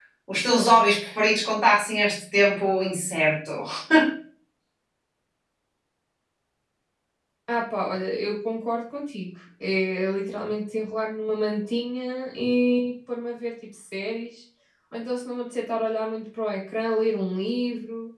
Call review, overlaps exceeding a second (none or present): none